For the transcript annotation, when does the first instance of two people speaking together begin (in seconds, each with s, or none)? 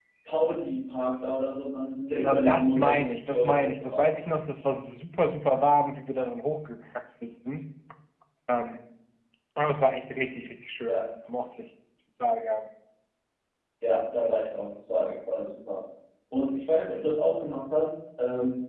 2.2 s